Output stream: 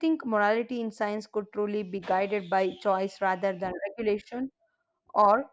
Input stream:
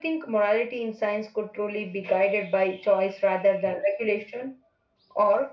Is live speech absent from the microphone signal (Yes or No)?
Yes